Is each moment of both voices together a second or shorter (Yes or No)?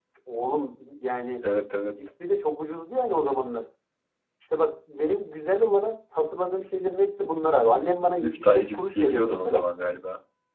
No